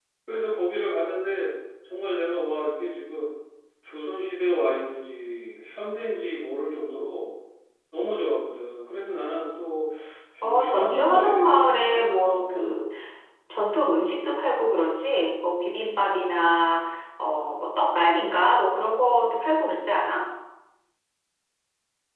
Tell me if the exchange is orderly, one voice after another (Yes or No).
No